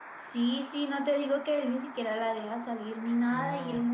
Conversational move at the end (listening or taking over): listening